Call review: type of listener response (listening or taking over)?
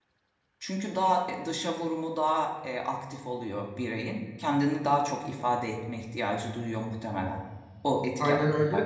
taking over